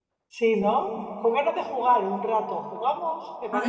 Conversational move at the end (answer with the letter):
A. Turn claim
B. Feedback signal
A